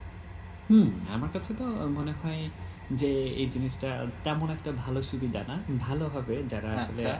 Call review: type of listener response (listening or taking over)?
listening